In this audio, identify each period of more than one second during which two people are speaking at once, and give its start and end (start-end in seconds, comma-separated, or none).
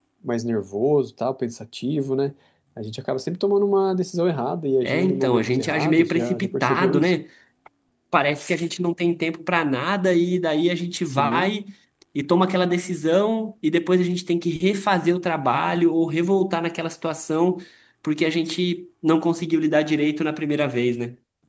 4.8-7.1